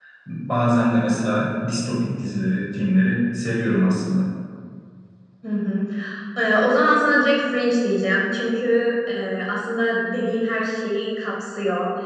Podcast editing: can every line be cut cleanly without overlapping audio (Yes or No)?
Yes